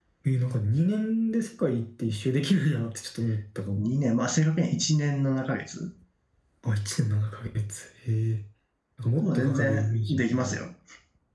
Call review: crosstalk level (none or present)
present